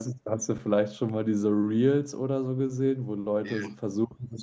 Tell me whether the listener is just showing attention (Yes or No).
Yes